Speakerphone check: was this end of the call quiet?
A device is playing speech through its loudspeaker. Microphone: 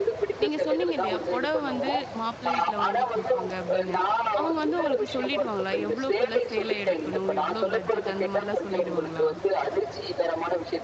No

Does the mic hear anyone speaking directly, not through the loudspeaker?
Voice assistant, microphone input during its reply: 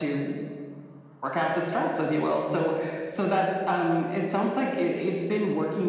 No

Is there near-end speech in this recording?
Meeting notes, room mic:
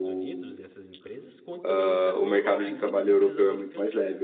Yes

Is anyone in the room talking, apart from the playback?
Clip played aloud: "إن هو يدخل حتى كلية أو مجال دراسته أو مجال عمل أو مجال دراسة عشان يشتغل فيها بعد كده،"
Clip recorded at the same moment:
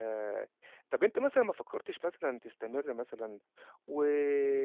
Yes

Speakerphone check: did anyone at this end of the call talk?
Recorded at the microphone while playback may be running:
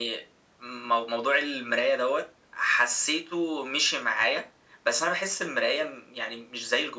No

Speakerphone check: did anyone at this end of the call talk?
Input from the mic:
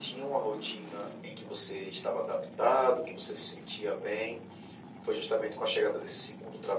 No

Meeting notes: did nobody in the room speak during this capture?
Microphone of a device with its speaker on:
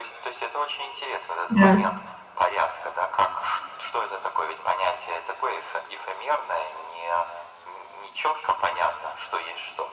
No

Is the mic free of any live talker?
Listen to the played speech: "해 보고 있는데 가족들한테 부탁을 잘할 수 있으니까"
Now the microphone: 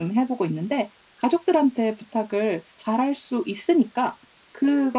Yes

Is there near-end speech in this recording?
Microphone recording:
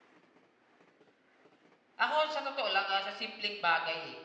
Yes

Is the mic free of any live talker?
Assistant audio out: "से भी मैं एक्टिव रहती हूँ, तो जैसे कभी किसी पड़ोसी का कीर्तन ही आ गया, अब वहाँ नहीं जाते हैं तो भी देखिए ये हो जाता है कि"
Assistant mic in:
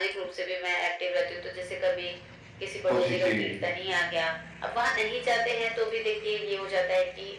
No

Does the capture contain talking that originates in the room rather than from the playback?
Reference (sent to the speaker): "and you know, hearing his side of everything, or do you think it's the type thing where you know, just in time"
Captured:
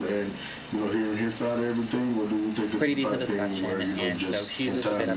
Yes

